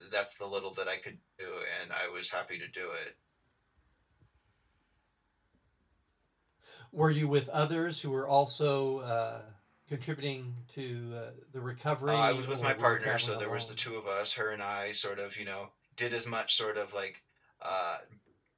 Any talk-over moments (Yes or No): Yes